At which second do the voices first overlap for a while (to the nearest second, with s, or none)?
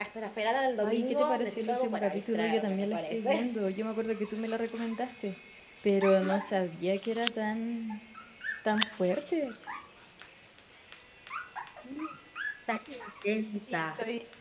1 s